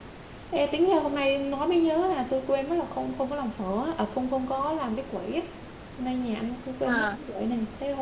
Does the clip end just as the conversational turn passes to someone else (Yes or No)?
No